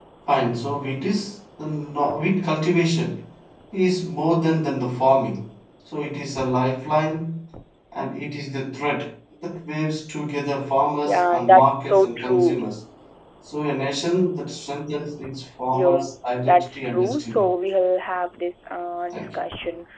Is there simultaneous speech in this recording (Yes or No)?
Yes